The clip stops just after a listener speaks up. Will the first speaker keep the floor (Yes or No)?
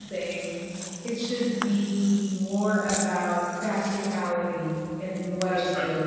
Yes